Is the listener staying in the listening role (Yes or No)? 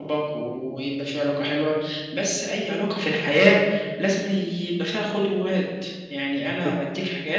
Yes